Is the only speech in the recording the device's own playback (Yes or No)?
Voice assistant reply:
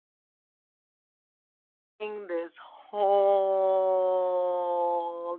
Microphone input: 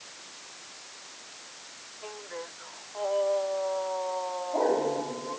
No